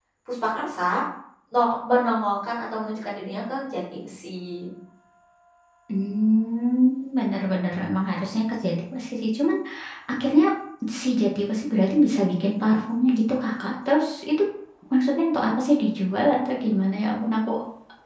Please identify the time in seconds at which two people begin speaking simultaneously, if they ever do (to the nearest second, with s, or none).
none